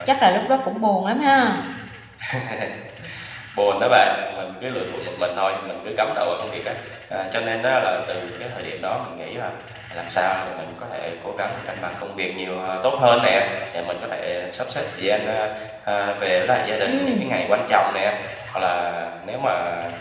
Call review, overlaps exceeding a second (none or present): none